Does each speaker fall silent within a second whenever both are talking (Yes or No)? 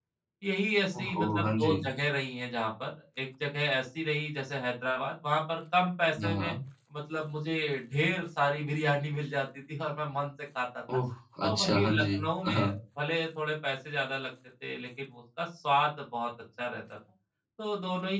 No